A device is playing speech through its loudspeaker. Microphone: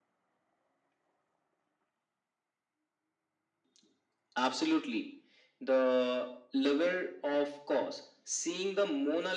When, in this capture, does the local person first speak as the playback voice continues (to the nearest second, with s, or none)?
none